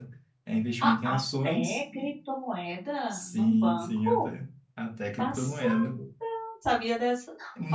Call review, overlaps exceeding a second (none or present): present